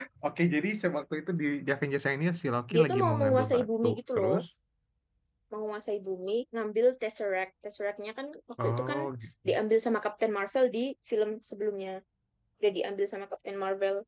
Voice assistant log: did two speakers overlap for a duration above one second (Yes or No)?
Yes